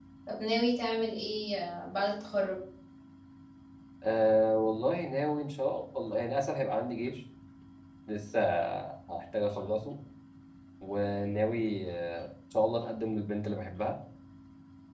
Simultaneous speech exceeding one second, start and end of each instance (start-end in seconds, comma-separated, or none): none